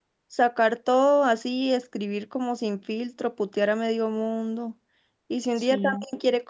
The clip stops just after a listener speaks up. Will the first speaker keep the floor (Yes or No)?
Yes